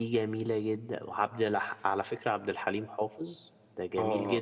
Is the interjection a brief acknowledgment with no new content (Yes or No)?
No